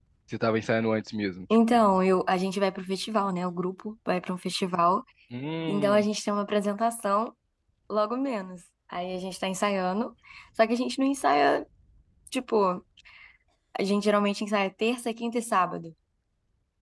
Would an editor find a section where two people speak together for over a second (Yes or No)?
No